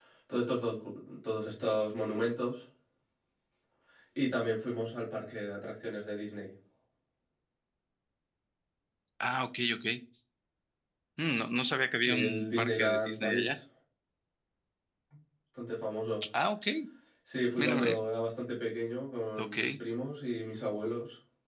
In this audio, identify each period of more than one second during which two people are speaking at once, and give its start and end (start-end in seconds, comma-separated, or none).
12.0-13.6